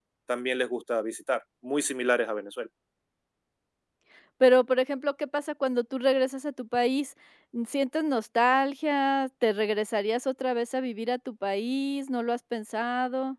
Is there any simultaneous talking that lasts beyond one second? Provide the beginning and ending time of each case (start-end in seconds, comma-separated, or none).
none